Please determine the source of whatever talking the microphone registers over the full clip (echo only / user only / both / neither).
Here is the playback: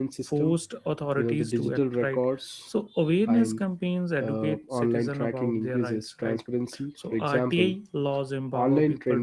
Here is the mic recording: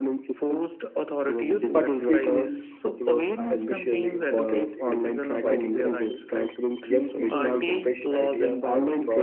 both